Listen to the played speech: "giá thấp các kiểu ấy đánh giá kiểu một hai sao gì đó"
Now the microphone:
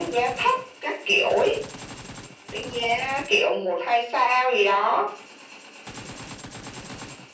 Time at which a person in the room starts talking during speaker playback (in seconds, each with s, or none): none